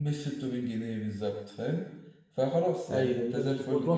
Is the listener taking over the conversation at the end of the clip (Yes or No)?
Yes